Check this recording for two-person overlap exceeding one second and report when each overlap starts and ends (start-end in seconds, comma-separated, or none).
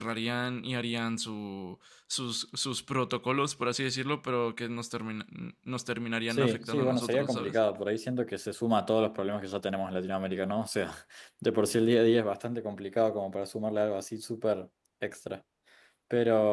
6.3-7.6